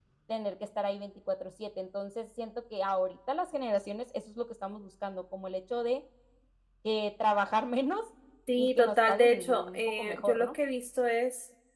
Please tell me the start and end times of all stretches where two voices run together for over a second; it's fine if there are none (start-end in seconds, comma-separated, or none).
8.6-10.6